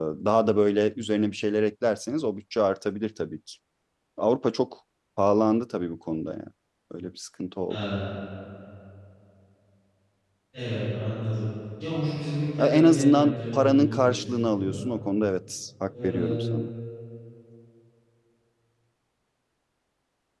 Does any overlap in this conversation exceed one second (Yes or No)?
Yes